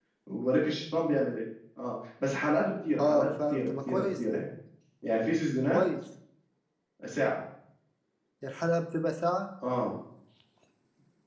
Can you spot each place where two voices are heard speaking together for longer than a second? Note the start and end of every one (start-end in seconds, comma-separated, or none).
3.0-4.4